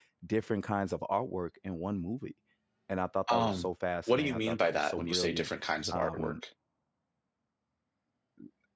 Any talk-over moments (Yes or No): Yes